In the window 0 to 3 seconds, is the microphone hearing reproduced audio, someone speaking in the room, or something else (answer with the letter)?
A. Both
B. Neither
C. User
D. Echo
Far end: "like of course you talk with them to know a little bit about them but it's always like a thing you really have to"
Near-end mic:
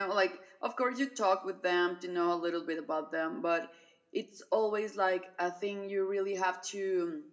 D